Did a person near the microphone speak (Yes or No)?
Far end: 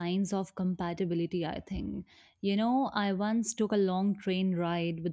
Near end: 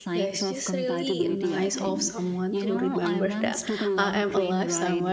Yes